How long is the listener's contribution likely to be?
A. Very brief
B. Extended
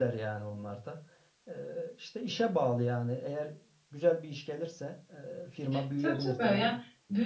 B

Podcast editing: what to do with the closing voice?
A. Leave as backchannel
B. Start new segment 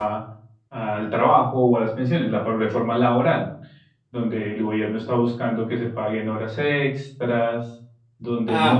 B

